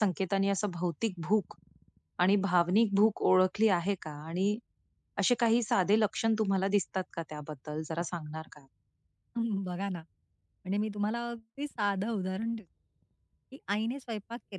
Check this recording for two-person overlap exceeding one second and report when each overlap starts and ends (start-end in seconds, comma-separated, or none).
none